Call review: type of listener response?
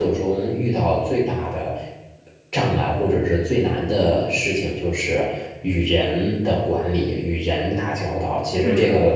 listening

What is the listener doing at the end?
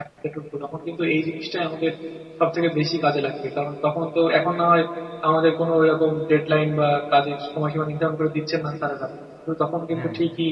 listening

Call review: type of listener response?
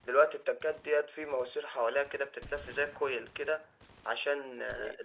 listening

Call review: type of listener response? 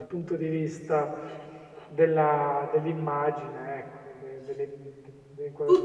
taking over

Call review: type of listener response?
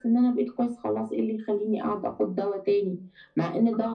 listening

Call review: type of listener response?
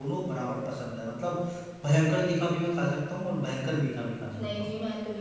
taking over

